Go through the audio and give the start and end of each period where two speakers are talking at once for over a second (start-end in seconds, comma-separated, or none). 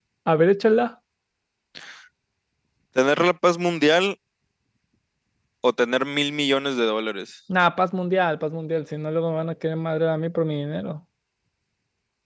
none